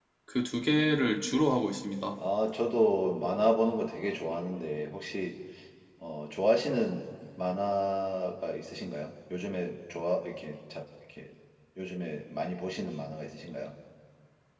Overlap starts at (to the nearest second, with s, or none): none